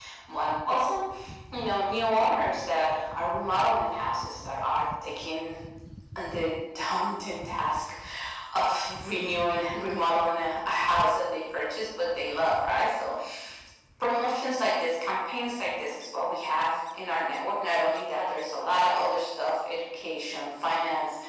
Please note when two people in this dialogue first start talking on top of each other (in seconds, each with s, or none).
none